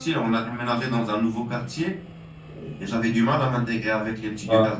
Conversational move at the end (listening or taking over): listening